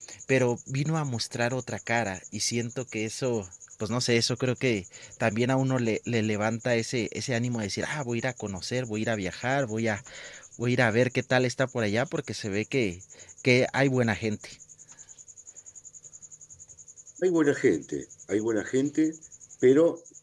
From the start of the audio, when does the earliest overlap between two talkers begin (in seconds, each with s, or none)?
none